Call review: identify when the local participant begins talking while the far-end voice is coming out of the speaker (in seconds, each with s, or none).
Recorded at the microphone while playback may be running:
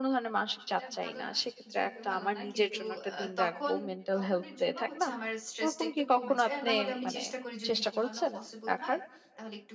0.7 s